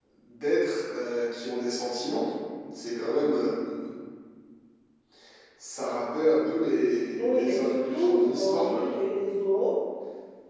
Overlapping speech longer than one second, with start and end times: 7.2-8.9

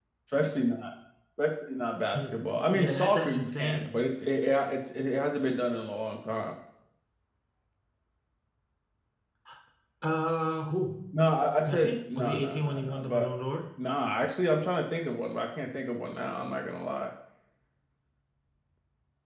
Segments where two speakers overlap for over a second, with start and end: 2.2-3.9, 11.6-13.3

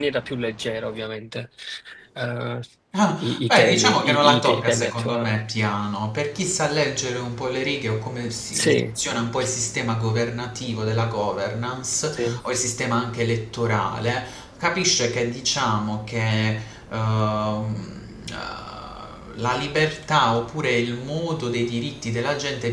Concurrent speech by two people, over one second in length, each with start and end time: 3.2-5.4

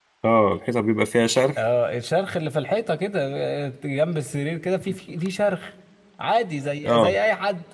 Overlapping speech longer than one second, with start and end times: none

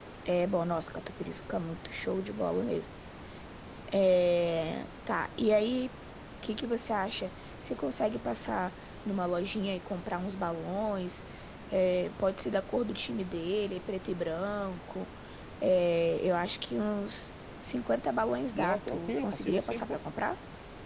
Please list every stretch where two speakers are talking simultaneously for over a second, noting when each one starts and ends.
18.5-20.0

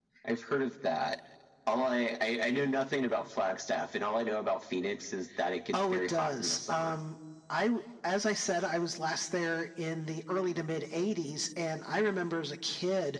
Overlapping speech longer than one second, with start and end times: 5.7-7.0

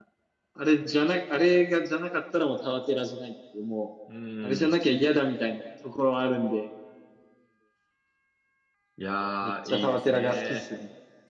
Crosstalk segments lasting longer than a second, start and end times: 9.4-10.6

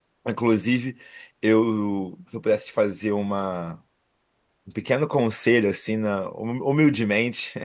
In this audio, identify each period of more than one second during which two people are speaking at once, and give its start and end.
none

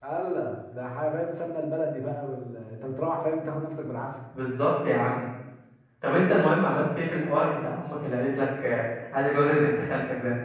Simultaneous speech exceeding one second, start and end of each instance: none

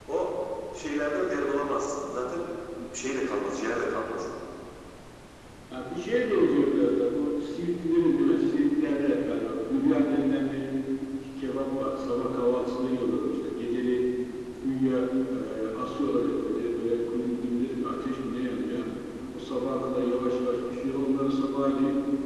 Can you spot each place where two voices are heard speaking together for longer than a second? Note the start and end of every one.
none

